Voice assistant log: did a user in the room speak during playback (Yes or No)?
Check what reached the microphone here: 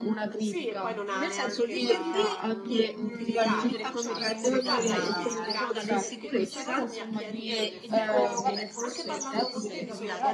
Yes